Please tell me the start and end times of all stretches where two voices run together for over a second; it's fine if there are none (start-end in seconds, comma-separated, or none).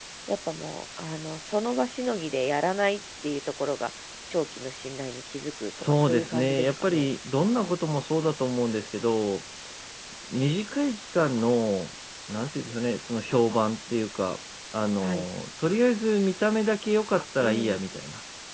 5.8-7.1